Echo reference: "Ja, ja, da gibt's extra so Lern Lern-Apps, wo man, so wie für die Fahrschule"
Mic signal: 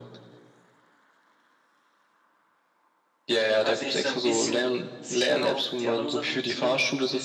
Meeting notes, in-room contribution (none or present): present